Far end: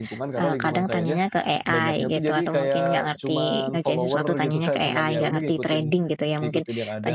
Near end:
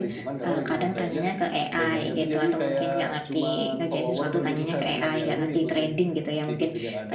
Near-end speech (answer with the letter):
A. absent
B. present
A